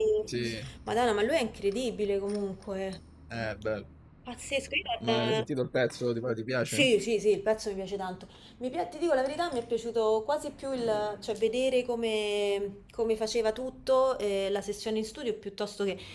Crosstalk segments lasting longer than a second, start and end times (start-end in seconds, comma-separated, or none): none